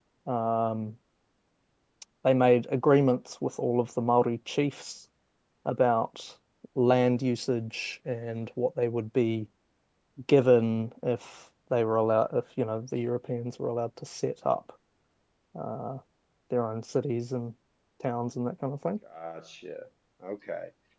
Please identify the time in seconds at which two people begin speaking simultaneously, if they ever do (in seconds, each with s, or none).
none